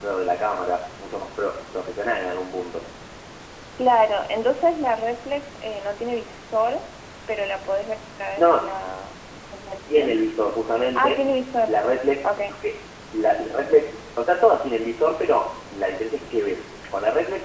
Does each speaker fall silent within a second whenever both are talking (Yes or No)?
Yes